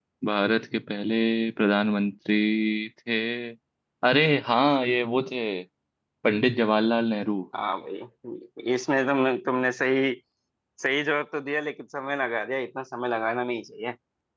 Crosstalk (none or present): none